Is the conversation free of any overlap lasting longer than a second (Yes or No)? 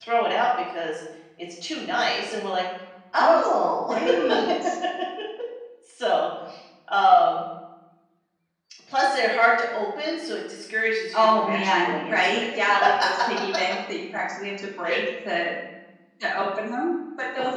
No